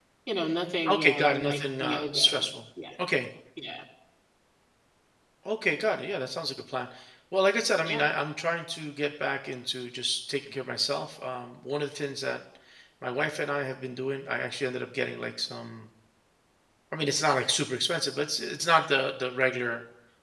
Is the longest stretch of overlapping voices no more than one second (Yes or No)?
No